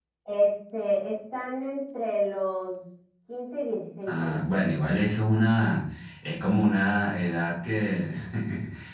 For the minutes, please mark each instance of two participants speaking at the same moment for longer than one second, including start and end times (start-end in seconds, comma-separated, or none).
none